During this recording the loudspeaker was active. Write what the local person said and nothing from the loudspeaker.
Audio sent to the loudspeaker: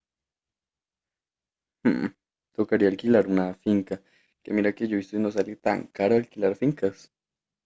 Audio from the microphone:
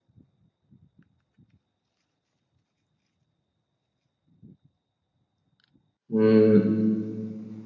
Mm,

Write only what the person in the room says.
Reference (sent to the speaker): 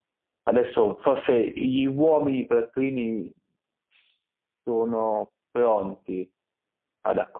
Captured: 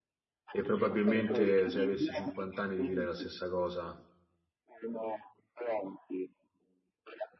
e probabilmente se avessi 50 anni ti direi la stessa cosa,

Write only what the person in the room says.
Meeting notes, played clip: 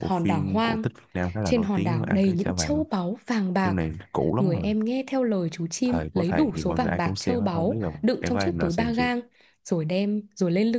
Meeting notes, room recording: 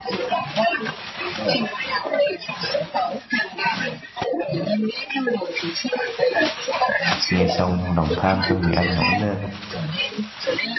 Nghe xong lòng tham trong người anh nổi lên.

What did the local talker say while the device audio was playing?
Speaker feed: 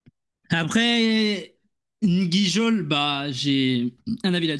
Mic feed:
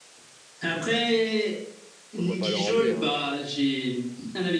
On va pas leur enlever, hein, mais,

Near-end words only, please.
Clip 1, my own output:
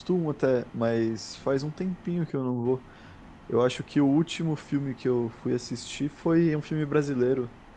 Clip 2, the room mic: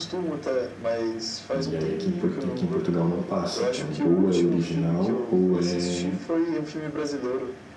E aí aqui em, Por- e aqui em Portugal não passa, então ou é o original ou é

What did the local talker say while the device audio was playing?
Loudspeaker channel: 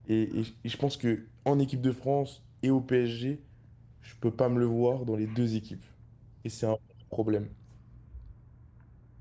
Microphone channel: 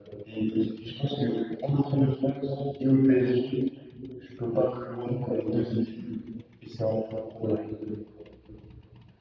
none

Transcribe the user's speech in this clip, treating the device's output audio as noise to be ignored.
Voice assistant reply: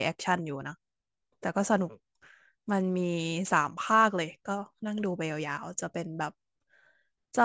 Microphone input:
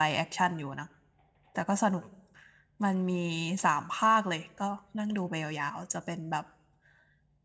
none

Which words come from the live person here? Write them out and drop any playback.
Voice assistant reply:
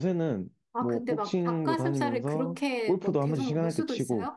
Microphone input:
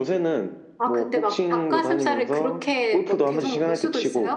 none

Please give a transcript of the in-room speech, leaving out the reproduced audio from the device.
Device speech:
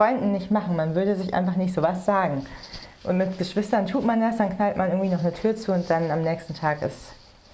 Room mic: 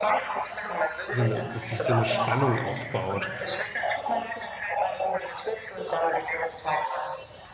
so eine, dass sich so eine Spannung aufbaut

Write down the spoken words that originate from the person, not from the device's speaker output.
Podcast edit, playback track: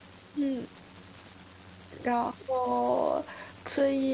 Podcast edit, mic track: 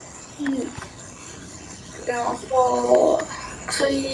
none

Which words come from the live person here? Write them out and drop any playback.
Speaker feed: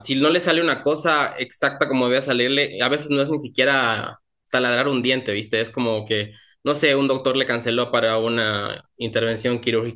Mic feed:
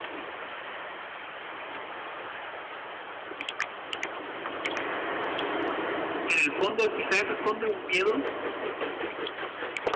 en el fondo quizás eso esconde un miedo

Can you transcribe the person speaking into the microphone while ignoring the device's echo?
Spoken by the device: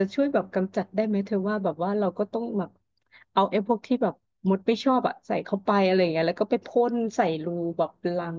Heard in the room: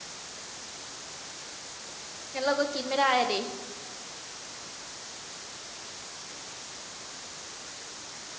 งั้นเราก็กินไม่ได้อะดิ

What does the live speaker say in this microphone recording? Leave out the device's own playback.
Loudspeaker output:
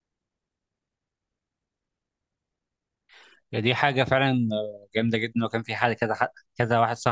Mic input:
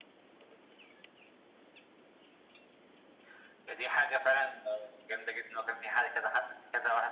none

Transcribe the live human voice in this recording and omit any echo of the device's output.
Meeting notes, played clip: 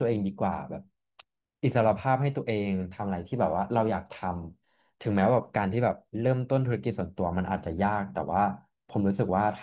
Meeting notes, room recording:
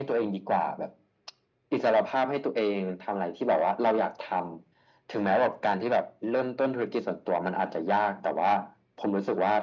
none

